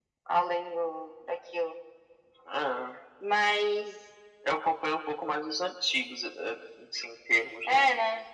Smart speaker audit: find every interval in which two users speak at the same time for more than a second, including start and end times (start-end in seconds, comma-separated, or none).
none